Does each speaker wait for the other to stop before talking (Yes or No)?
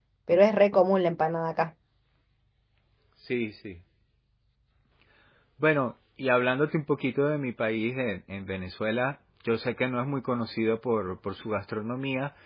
Yes